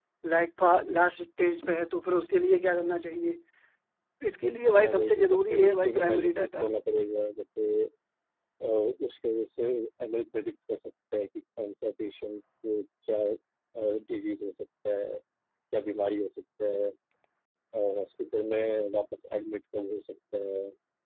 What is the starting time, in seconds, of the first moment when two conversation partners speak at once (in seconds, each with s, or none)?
4.8 s